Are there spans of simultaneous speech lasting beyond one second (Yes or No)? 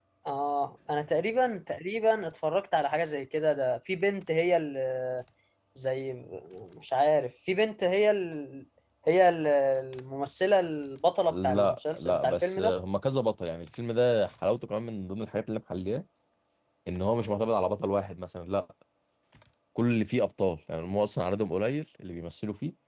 Yes